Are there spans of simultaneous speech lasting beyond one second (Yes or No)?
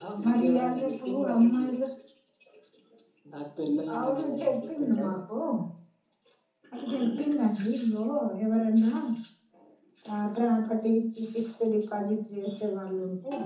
Yes